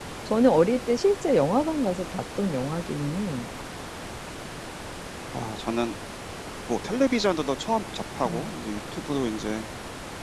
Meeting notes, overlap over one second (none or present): none